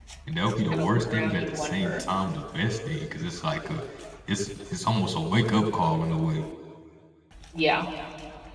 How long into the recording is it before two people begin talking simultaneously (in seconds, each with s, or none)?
0.7 s